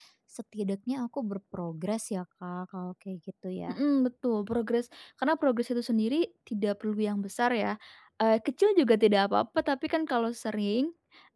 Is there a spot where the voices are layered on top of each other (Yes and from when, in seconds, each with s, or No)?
No